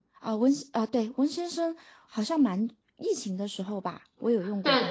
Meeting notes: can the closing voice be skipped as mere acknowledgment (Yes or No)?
No